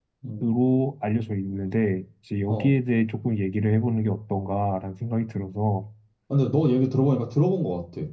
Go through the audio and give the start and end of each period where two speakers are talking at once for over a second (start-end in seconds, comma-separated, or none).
none